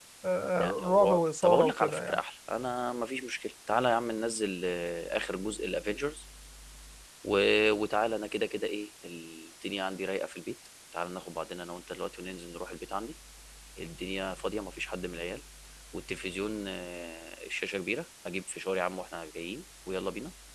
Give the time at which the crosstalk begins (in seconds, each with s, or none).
0.6 s